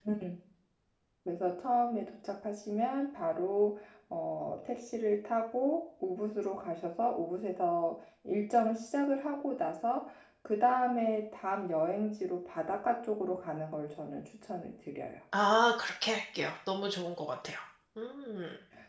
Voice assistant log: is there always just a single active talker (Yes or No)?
Yes